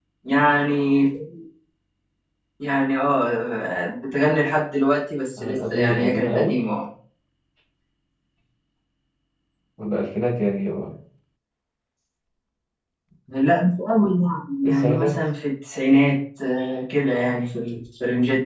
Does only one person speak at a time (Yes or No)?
No